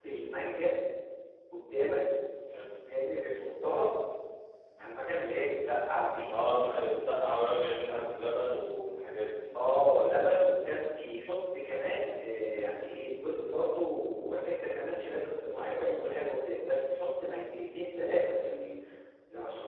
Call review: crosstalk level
none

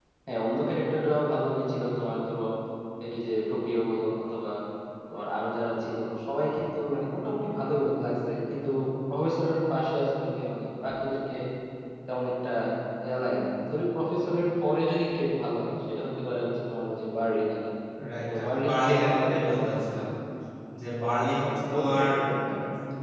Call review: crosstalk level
present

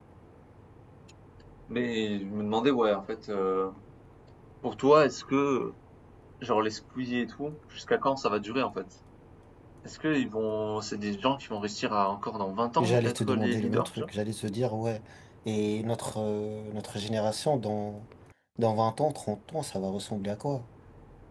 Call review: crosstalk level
present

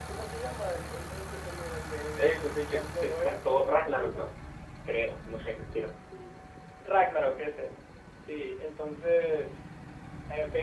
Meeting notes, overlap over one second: present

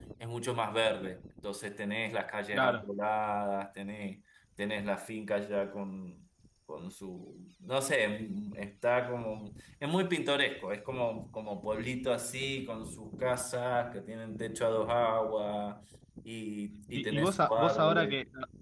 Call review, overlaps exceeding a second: present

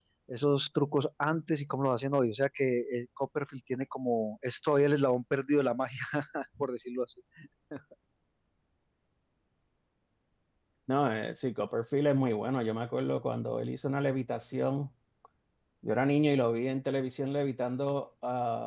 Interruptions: none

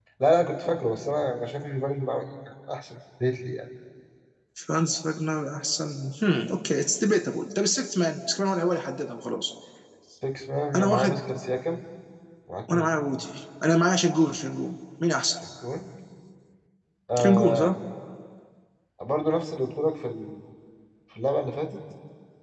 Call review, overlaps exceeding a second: none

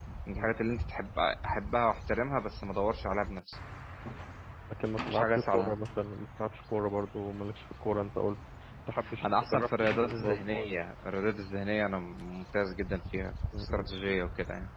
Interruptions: present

